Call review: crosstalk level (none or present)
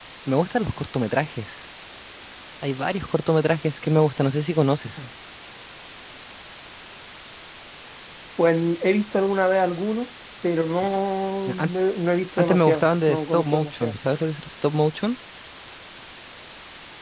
present